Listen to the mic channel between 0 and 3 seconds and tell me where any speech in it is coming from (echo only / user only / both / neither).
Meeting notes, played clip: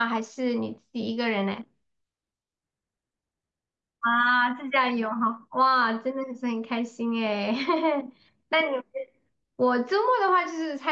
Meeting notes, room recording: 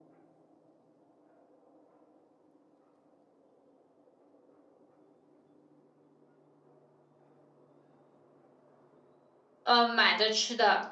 neither